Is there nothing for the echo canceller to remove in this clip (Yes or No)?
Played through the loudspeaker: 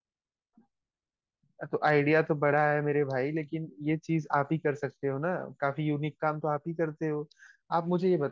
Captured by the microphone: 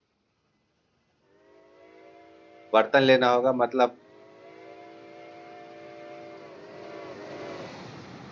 Yes